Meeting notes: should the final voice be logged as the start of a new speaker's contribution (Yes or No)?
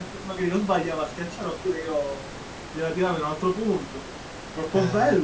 Yes